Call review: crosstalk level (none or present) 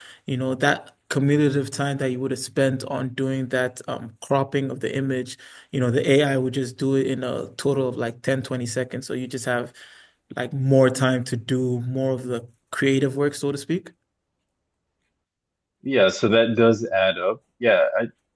none